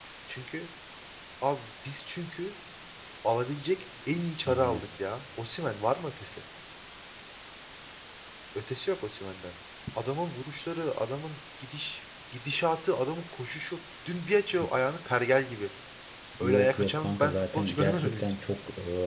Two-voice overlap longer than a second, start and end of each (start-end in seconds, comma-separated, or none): 16.4-18.3